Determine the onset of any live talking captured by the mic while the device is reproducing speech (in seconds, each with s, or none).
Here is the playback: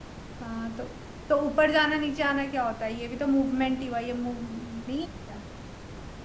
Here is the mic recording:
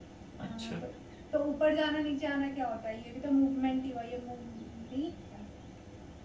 0.4 s